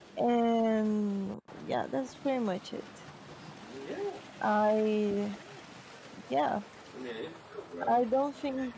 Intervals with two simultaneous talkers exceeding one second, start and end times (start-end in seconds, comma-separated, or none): none